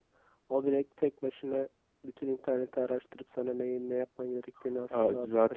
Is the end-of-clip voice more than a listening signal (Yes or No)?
Yes